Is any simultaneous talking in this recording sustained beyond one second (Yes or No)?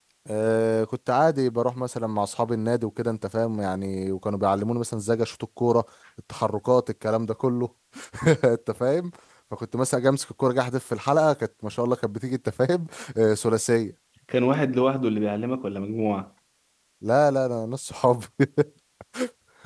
No